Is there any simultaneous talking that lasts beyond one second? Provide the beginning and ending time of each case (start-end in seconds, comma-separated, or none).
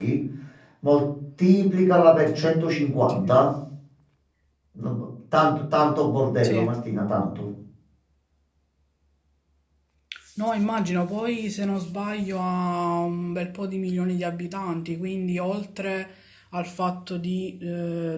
none